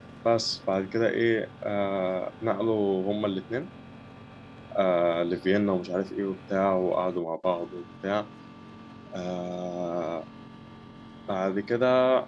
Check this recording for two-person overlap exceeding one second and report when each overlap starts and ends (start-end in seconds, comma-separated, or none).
none